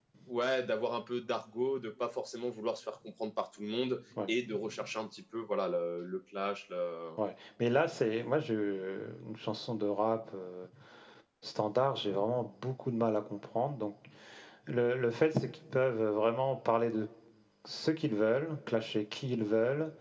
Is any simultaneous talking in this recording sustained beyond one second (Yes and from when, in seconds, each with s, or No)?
No